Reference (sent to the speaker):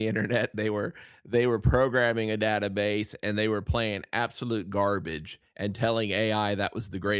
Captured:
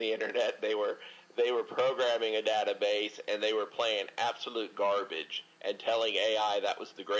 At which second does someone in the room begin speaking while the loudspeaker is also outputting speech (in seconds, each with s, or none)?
none